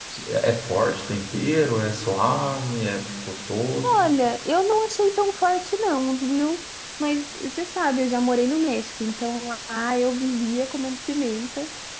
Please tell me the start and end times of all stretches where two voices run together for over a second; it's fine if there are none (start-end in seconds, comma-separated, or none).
none